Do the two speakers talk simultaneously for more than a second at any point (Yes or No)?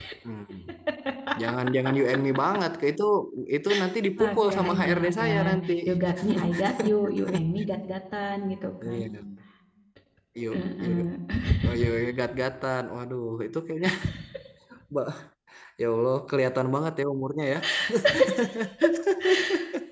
Yes